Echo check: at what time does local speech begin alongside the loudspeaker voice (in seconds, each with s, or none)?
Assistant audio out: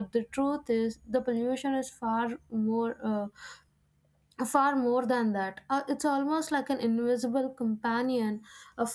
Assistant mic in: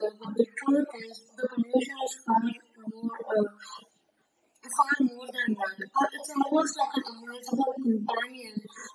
none